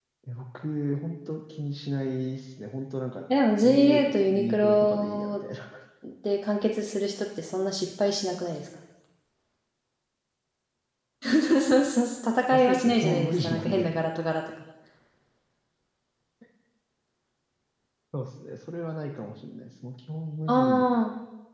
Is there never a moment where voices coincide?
No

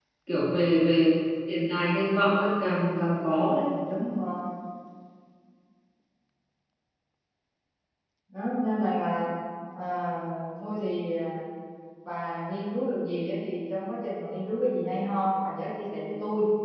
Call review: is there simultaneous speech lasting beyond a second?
No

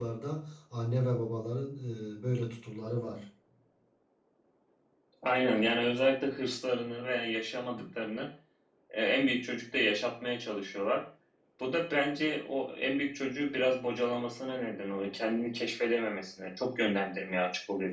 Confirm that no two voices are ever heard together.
Yes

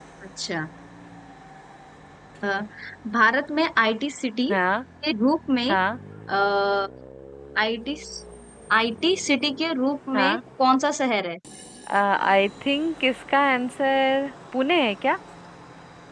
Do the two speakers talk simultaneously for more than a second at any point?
No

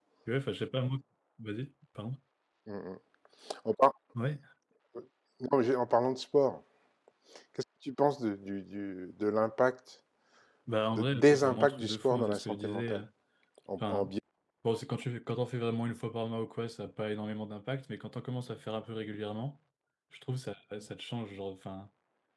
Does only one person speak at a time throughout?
No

